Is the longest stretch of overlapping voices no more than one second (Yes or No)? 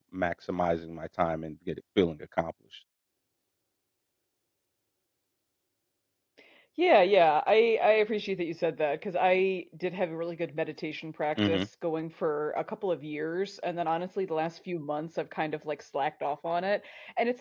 Yes